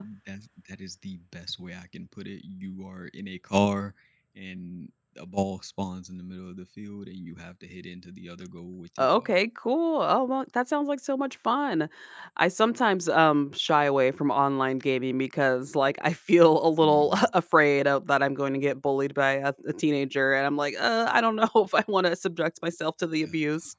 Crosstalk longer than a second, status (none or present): none